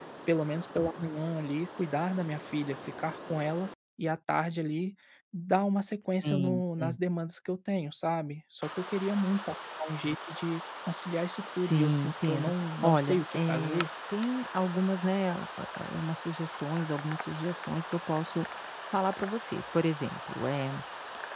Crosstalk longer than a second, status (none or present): present